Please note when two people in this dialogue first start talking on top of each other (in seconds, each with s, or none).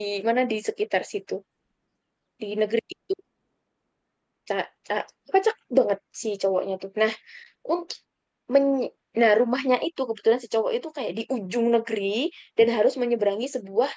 none